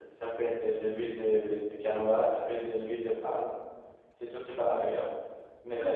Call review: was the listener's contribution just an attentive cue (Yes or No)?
No